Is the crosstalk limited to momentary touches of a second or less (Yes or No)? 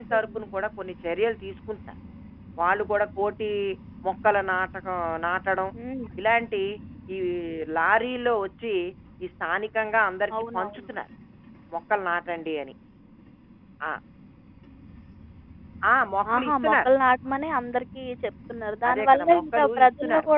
No